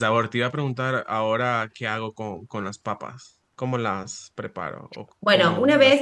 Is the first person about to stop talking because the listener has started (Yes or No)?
Yes